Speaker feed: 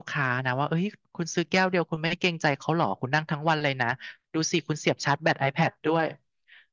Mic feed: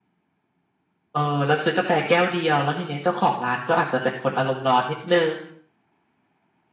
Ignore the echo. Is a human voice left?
Yes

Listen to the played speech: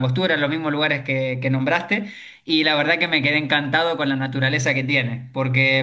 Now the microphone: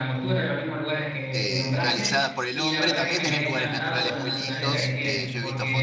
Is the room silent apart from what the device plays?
No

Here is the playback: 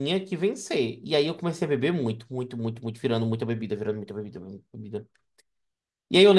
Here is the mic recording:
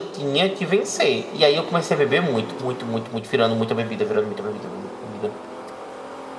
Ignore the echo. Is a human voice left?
No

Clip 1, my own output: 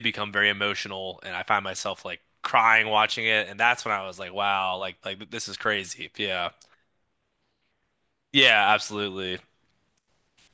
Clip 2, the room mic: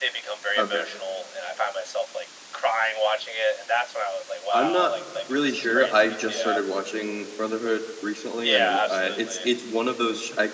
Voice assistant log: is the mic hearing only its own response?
No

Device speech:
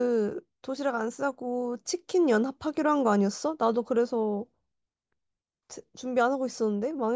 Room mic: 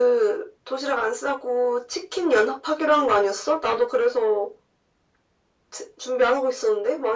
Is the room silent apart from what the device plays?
Yes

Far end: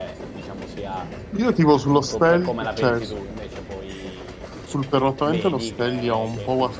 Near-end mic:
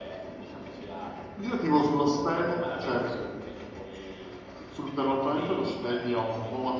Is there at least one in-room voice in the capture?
No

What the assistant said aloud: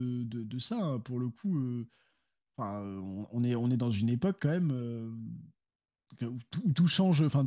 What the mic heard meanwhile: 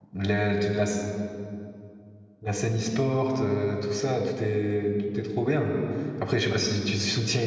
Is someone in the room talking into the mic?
Yes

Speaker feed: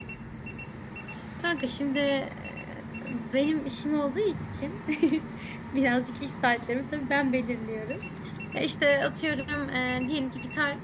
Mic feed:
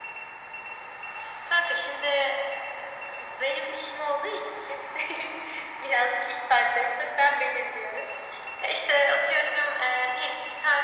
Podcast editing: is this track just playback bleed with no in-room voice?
Yes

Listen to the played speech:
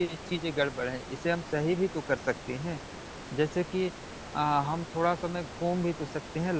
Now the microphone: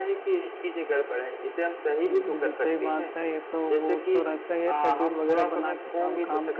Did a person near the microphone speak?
Yes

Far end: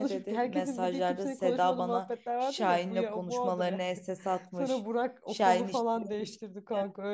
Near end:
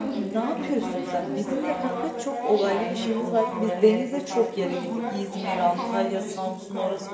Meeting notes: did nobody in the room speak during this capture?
No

